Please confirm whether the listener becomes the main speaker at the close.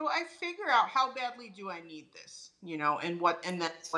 No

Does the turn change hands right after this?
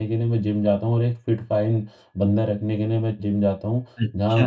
Yes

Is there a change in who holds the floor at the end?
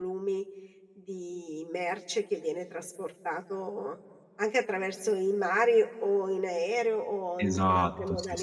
Yes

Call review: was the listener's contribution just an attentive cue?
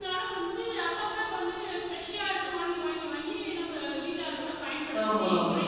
No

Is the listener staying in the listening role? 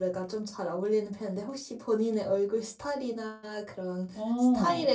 Yes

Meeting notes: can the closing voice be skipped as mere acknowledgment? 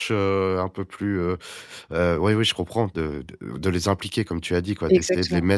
Yes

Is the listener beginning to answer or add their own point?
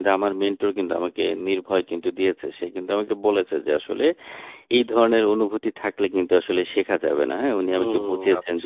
Yes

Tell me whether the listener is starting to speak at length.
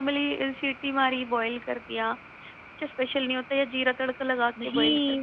Yes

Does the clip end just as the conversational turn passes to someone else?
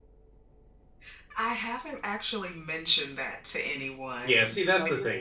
Yes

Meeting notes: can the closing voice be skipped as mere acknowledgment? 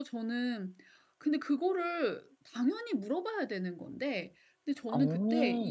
Yes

